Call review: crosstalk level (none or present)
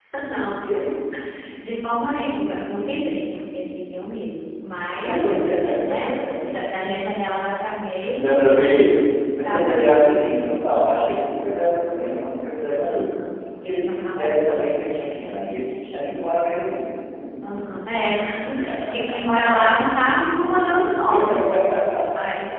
present